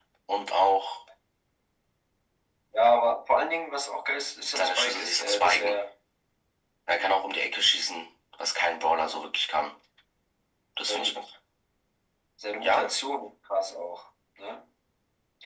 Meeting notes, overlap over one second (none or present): present